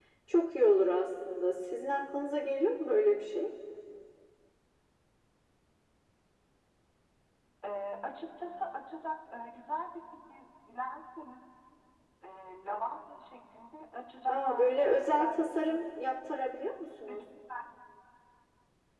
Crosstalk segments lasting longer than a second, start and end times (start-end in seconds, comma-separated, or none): 14.3-16.0